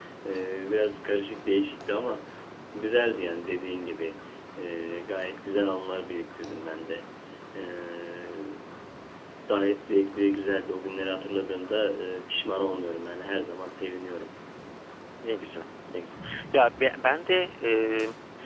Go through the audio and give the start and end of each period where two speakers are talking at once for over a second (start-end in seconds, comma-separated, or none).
none